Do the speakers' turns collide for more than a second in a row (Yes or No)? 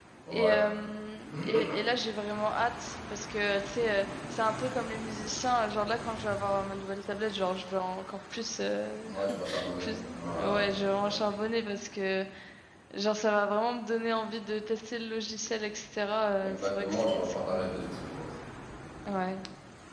Yes